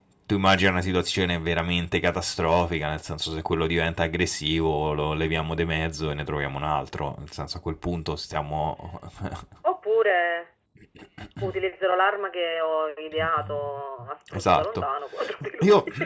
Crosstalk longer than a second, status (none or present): none